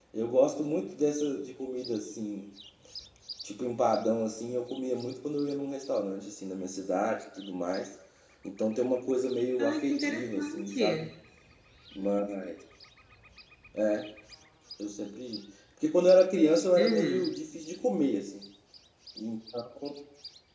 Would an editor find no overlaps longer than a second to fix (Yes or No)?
No